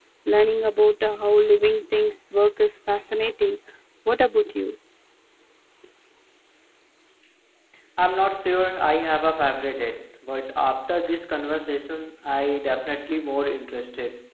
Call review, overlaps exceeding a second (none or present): none